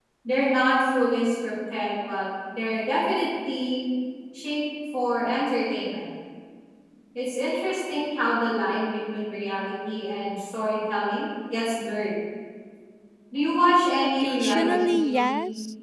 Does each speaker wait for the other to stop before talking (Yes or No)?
No